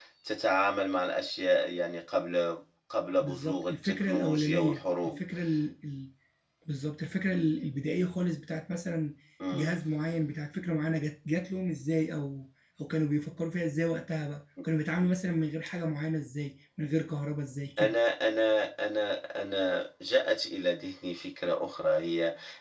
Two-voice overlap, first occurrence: 3.2 s

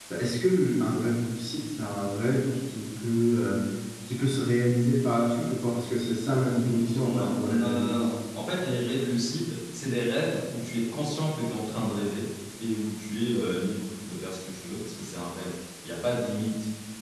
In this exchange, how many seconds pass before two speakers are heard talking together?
6.5 s

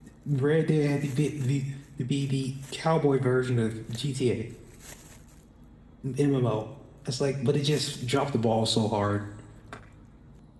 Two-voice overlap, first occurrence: none

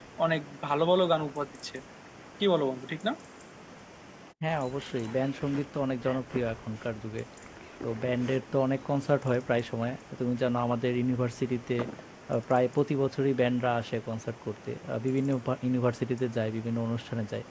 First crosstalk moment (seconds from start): none

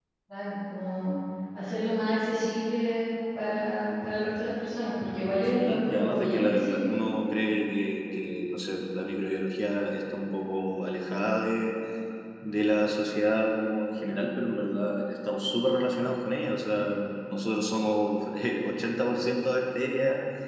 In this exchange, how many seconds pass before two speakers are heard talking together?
5.4 s

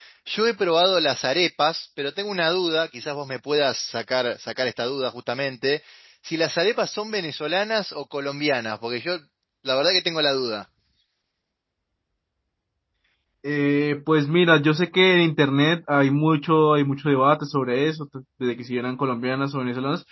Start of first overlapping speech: none

